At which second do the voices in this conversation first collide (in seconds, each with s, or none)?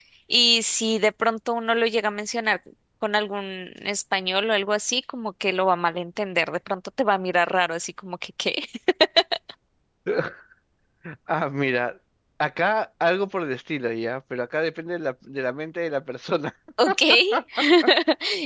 none